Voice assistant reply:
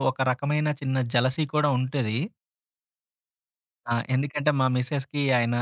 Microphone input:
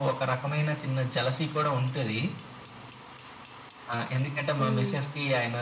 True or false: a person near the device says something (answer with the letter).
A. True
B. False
A